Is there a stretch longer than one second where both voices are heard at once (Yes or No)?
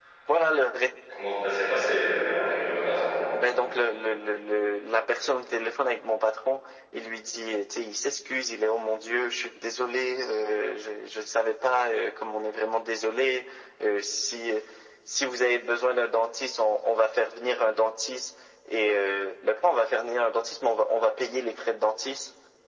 No